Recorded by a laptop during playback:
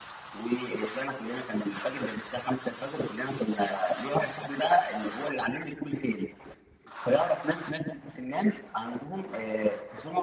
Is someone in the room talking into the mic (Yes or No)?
No